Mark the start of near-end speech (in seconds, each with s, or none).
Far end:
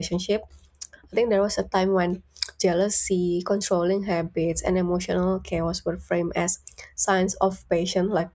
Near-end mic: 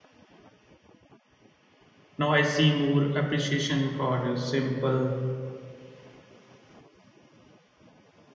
2.2 s